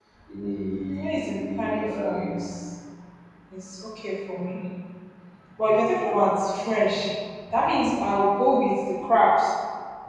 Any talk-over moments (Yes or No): Yes